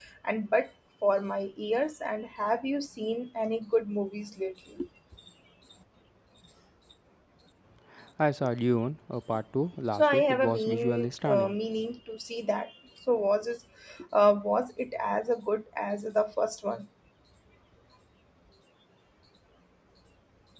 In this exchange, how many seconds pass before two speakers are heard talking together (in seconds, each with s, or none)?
9.9 s